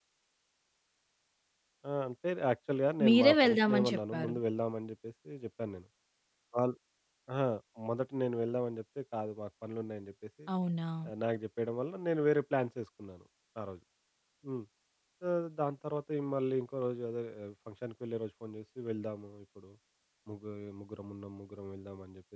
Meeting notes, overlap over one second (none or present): present